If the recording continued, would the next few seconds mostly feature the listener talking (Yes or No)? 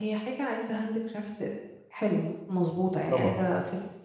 No